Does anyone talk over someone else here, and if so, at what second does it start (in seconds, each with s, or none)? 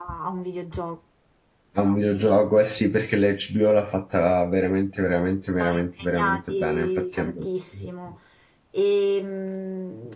5.6 s